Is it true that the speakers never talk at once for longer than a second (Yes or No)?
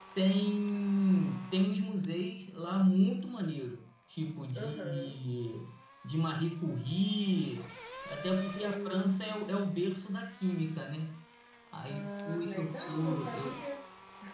No